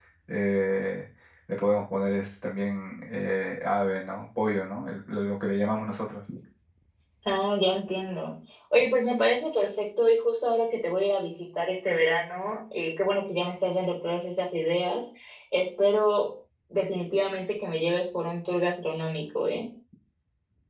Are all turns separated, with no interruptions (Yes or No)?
Yes